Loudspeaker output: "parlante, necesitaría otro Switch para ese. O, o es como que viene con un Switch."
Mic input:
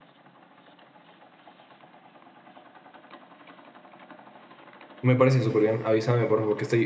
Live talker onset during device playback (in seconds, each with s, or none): 5.0 s